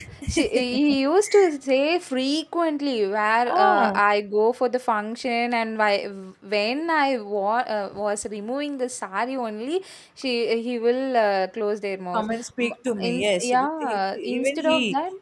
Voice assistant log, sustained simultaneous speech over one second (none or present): present